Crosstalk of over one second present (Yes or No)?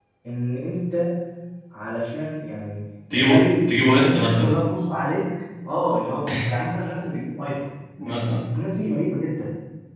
Yes